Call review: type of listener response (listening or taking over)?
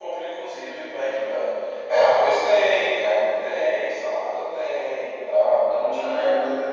taking over